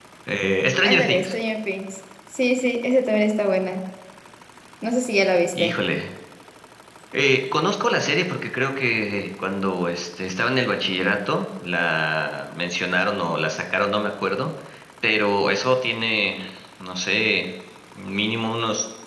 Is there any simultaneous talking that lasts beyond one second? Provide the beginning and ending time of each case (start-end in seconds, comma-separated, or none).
none